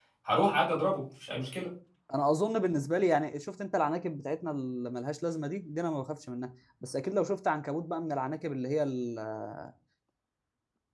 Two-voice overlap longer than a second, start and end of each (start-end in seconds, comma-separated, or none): none